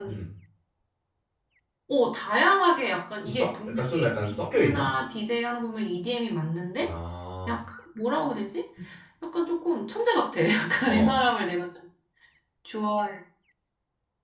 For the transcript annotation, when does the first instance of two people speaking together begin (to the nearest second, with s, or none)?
3 s